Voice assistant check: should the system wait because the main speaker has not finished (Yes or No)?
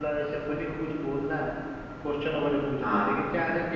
Yes